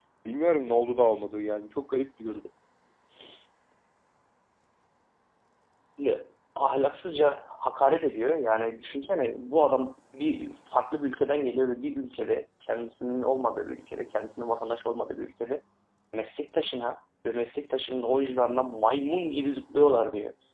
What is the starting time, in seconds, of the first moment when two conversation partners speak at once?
none

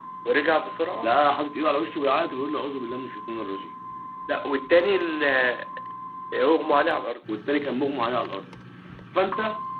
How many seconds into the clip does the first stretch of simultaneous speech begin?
none

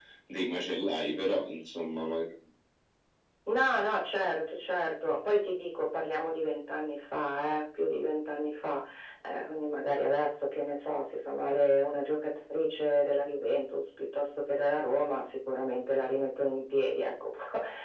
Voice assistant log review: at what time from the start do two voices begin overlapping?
none

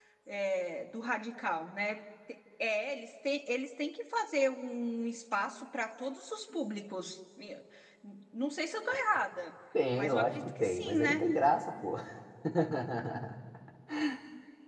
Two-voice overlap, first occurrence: 9.9 s

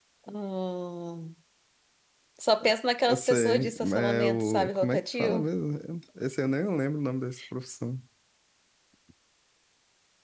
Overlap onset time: 3.1 s

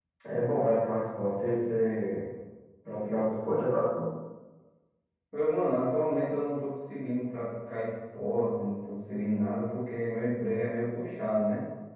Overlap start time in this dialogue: none

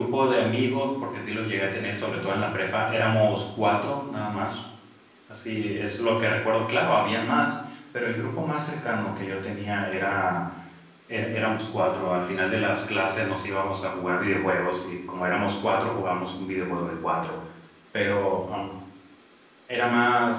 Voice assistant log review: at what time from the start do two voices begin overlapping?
none

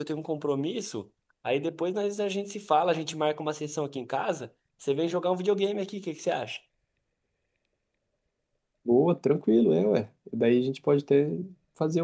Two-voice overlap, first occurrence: none

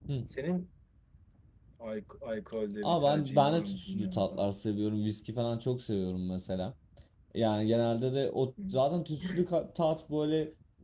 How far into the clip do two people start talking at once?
2.8 s

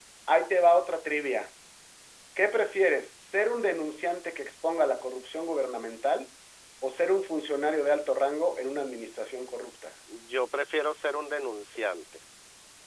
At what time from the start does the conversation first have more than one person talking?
none

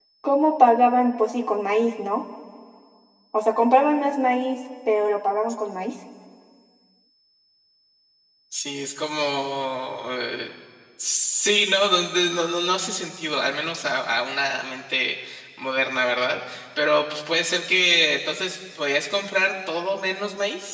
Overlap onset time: none

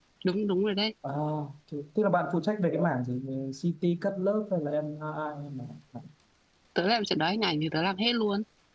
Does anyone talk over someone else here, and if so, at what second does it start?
none

